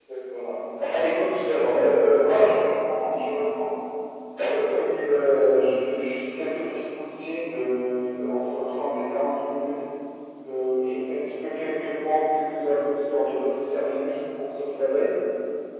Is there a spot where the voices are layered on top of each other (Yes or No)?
Yes